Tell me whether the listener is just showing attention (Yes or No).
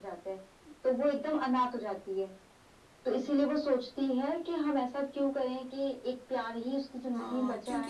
No